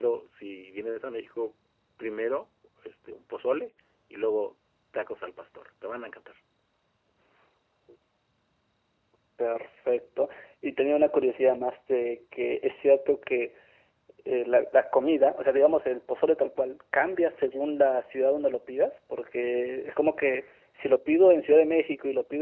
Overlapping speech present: No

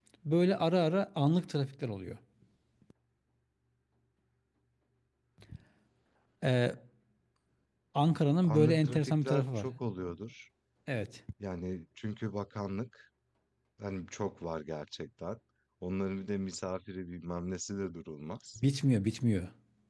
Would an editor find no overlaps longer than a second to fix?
No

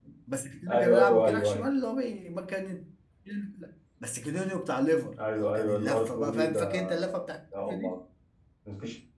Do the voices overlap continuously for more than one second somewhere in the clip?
Yes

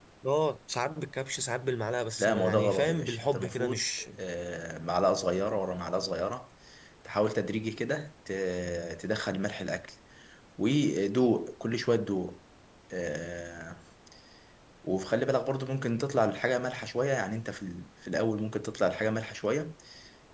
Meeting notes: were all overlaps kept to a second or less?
No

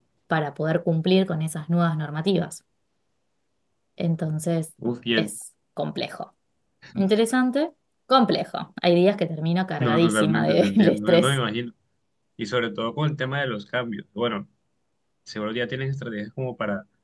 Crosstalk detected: Yes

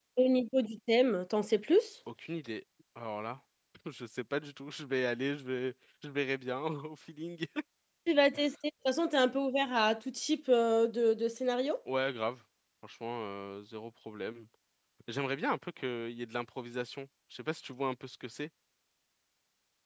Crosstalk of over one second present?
No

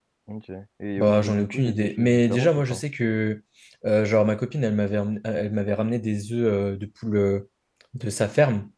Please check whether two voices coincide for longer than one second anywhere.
Yes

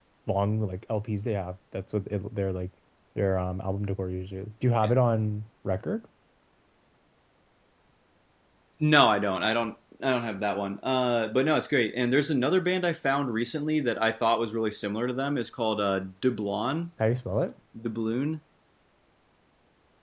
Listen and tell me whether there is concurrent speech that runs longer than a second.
No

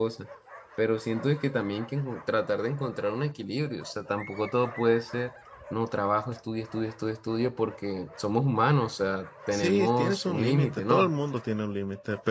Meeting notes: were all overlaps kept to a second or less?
No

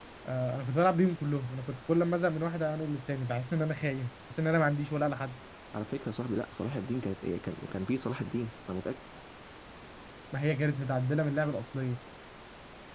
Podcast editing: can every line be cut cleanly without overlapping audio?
Yes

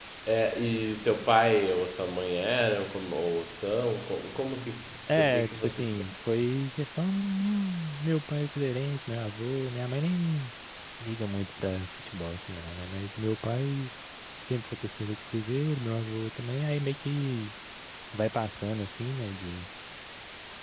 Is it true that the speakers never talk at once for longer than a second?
No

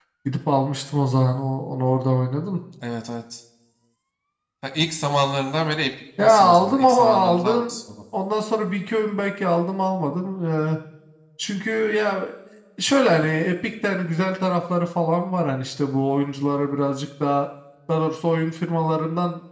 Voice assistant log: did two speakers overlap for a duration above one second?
Yes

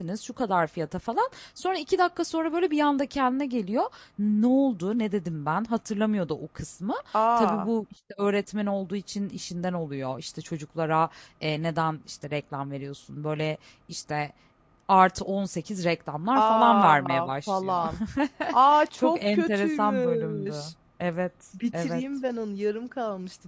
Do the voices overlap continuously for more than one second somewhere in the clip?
Yes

